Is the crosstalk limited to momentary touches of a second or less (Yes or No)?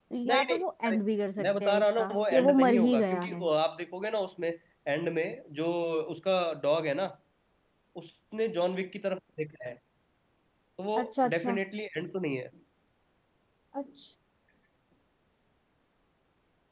No